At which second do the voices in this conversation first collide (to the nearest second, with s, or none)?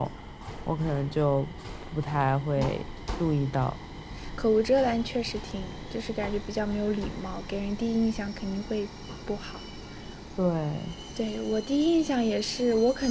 none